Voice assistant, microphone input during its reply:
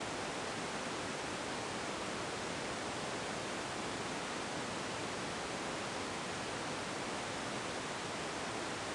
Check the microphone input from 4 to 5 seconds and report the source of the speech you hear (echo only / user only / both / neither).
neither